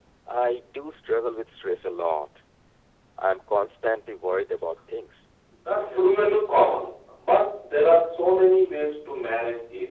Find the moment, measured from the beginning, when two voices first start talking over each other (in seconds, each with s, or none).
none